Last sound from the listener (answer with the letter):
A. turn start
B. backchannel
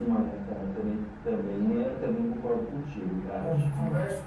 A